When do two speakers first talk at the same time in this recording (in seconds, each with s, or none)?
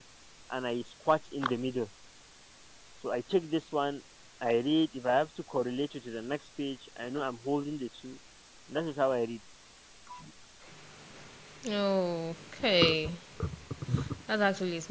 none